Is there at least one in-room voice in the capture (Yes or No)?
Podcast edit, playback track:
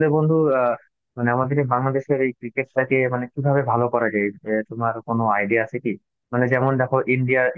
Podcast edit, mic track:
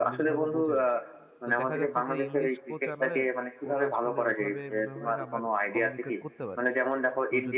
Yes